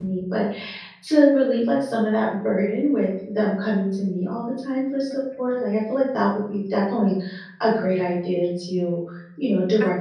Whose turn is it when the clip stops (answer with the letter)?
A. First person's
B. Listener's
A